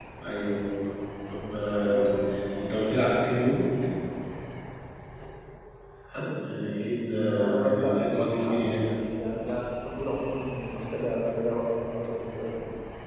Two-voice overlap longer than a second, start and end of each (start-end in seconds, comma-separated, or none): 7.3-8.8